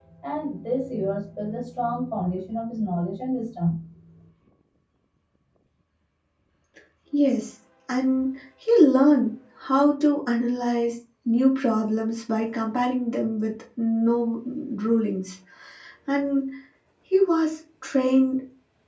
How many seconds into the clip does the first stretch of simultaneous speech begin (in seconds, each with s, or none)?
none